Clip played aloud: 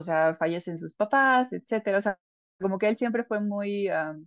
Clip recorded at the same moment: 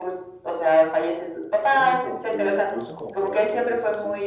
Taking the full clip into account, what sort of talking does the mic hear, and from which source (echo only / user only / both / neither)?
both